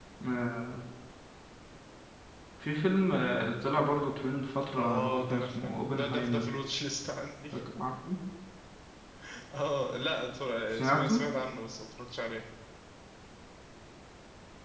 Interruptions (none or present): present